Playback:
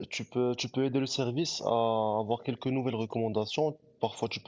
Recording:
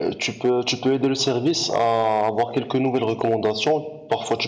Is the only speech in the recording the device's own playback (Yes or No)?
Yes